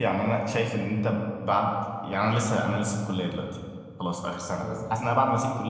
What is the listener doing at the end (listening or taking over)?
listening